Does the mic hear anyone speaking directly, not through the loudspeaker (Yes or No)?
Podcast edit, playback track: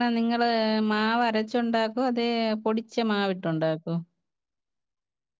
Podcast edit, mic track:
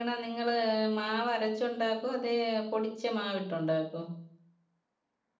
No